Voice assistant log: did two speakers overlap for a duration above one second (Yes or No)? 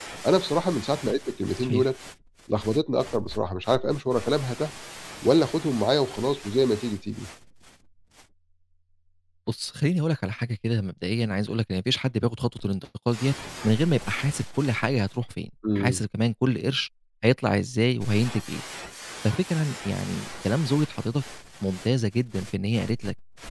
No